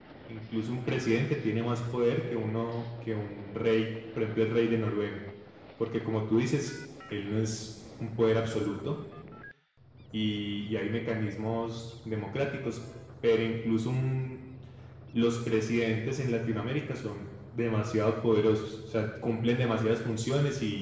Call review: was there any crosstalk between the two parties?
No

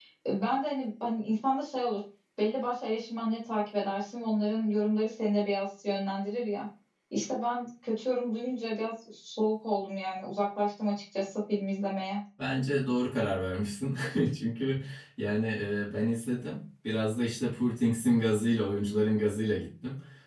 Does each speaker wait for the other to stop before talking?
Yes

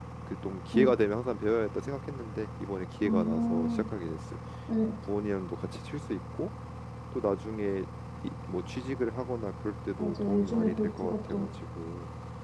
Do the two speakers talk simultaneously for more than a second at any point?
Yes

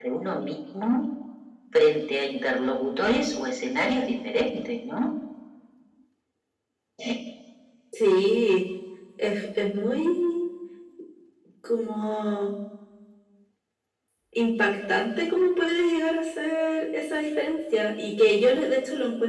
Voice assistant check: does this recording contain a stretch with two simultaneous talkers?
No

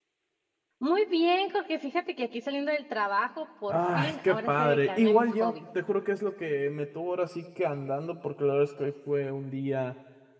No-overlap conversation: No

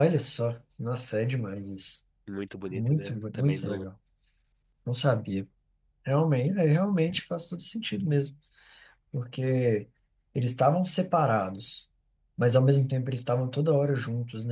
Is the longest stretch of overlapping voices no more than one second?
No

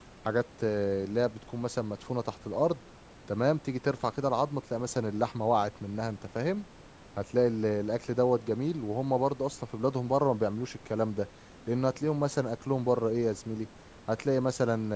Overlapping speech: No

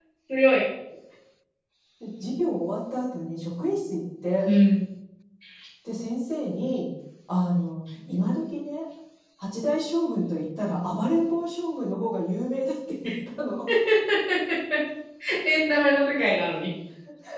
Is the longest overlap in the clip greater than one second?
No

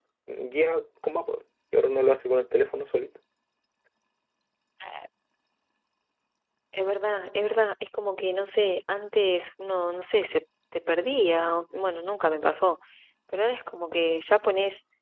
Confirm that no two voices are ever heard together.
Yes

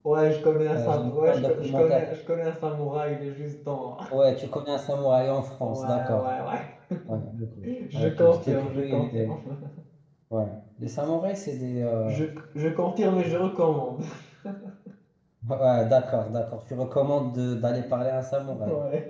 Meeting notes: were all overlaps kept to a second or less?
No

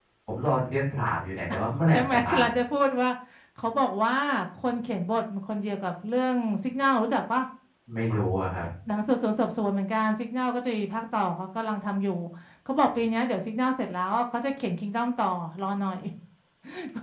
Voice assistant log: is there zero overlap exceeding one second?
Yes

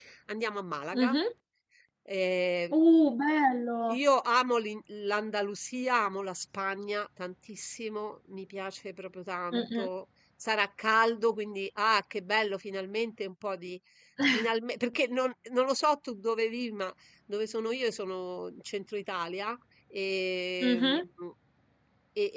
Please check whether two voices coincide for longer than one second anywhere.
No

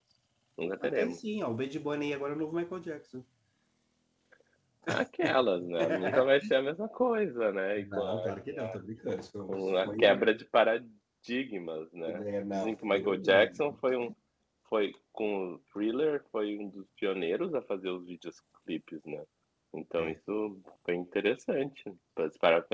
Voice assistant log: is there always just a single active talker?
No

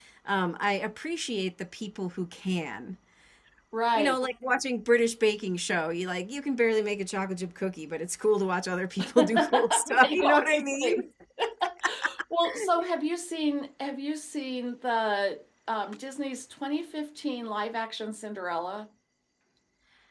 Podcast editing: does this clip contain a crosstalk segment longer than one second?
Yes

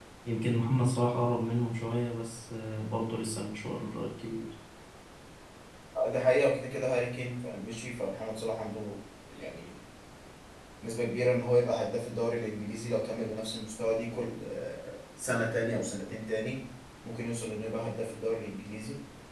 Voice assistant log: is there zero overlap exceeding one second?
Yes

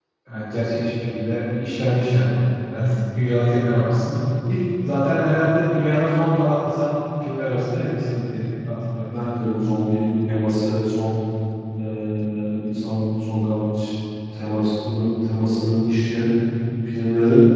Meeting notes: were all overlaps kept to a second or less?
Yes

